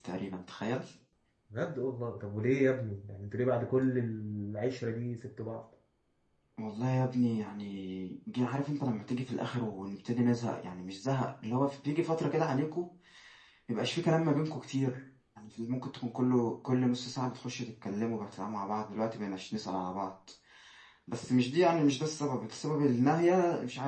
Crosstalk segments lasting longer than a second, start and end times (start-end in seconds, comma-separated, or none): none